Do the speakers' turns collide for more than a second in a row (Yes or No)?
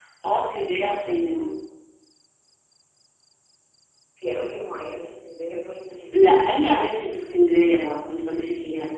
No